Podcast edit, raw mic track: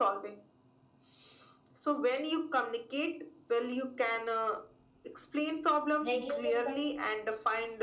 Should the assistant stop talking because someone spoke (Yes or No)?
Yes